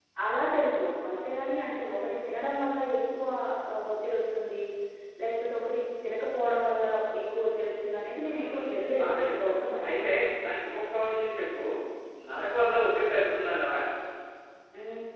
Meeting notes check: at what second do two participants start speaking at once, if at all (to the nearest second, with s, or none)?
8 s